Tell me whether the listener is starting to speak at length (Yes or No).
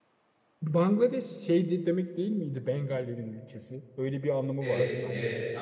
Yes